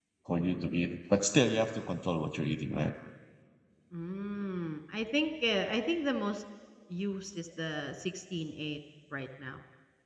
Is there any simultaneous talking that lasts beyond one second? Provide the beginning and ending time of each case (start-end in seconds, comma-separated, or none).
none